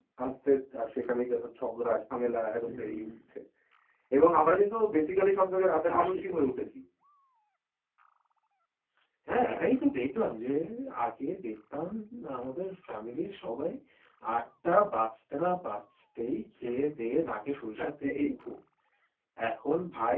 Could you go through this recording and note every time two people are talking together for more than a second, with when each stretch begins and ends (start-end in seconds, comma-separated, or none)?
none